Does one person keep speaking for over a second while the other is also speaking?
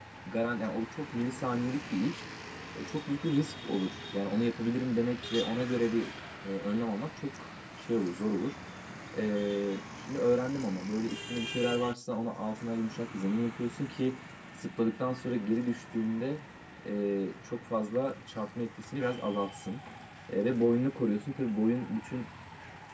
No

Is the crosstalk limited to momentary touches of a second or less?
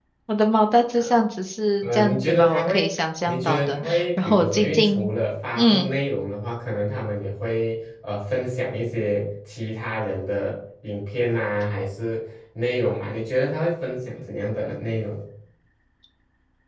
No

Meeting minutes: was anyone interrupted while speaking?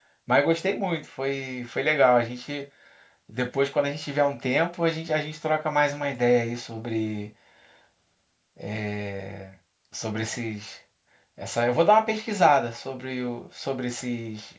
No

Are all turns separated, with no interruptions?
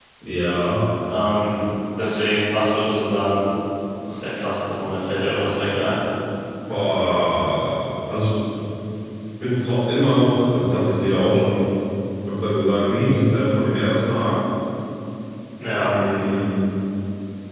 Yes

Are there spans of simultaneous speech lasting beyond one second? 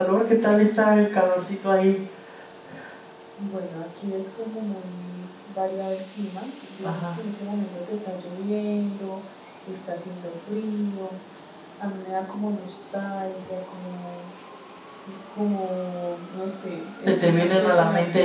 Yes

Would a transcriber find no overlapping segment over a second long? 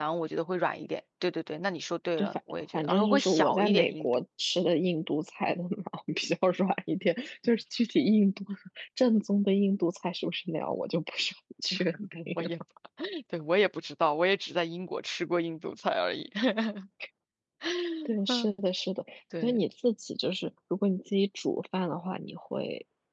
No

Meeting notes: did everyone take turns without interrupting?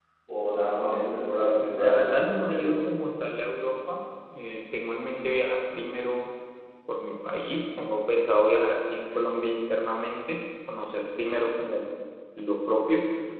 No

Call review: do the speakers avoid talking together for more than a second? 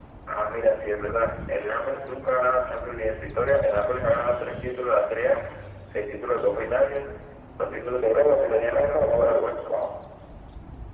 No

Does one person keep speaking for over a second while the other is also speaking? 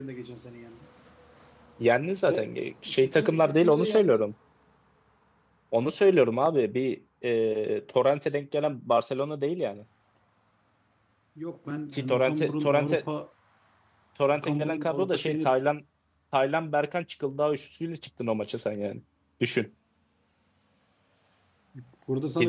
Yes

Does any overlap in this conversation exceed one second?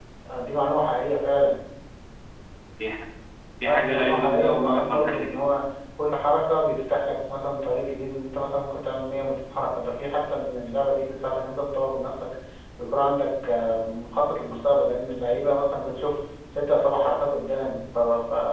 Yes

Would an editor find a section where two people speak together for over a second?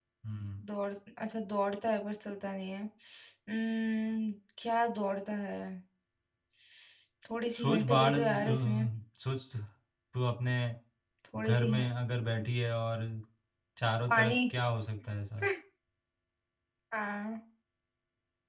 Yes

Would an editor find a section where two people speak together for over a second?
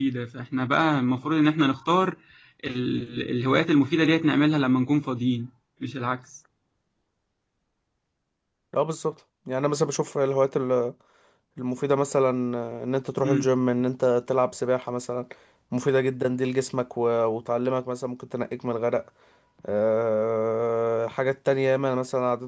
No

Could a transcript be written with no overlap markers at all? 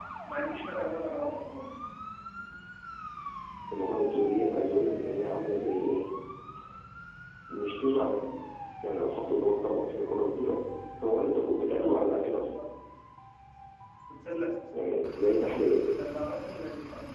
Yes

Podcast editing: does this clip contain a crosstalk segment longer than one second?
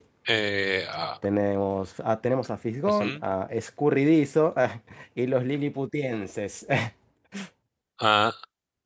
No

